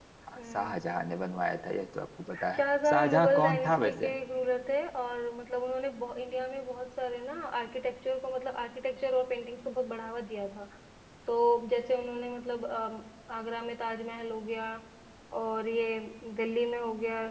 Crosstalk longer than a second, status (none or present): present